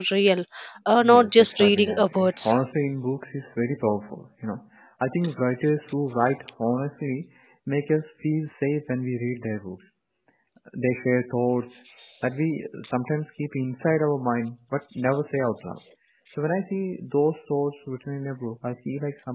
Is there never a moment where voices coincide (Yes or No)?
No